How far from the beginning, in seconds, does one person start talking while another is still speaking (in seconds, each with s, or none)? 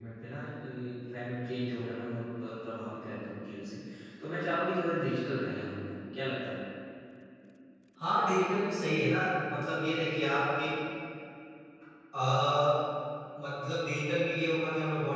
none